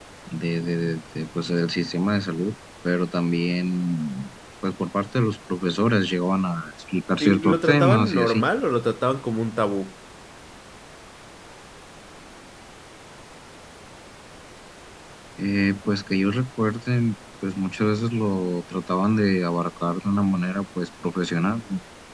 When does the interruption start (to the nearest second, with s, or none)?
7 s